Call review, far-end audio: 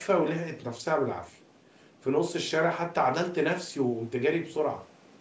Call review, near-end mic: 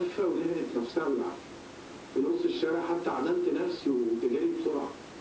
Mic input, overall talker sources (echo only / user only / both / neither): echo only